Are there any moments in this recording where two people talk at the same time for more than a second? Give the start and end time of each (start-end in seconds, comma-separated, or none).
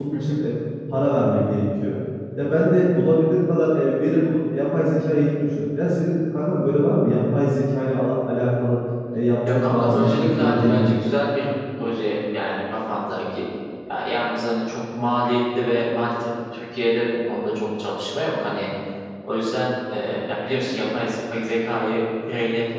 9.5-11.0